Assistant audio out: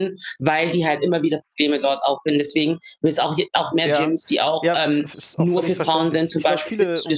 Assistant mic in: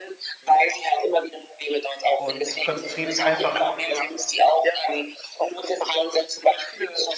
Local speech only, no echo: und ich konzentriere mich einfach“

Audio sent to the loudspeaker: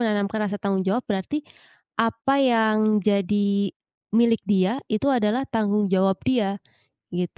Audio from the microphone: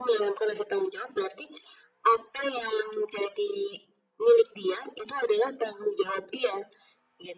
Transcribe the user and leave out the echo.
none

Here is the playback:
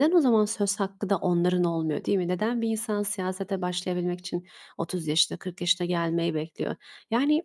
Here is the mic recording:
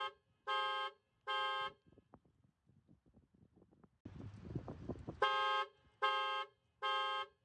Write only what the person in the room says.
none

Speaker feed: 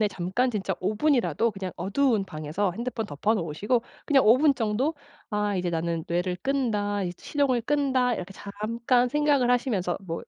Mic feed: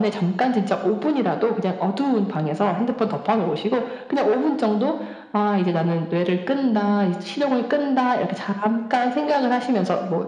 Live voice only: 네.

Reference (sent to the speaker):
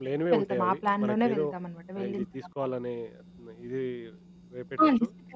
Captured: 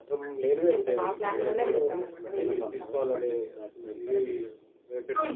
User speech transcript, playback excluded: అలాగే ఎక్కువగా కొనేసిన సందర్భాలున్నాయా? బడ్జెట్ దాటిపోయిన తర్వాత గూడా?

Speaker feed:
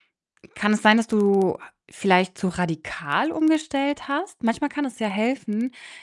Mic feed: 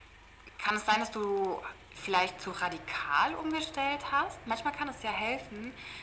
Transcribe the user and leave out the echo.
none

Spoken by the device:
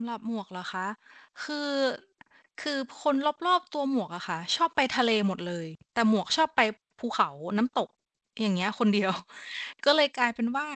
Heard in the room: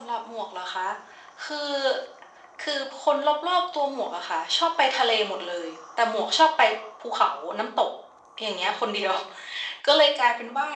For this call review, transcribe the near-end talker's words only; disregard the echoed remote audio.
none

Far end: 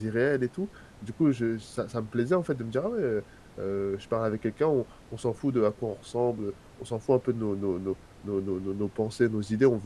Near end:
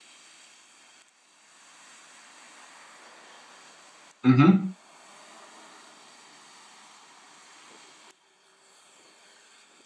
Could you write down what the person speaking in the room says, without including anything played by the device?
Mmh mh.

